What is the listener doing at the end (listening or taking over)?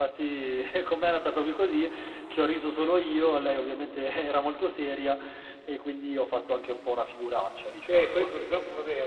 taking over